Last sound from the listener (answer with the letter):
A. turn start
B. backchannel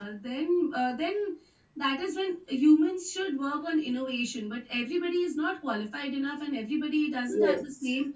B